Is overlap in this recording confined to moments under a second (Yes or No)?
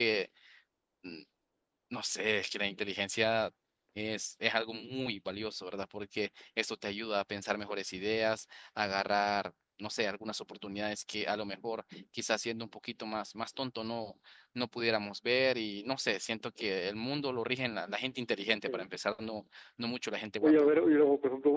Yes